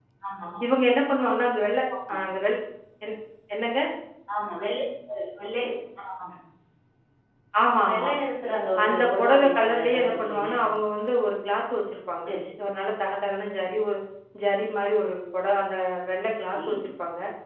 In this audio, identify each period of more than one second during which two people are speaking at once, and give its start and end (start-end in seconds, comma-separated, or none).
8.8-10.5